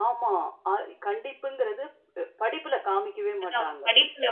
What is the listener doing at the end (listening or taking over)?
taking over